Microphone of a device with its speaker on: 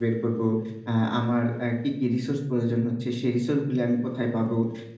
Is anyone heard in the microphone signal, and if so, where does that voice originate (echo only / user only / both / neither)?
user only